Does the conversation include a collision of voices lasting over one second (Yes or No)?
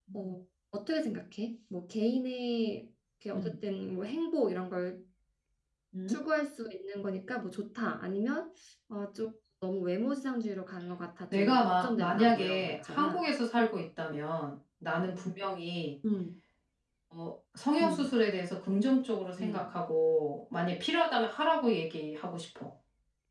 Yes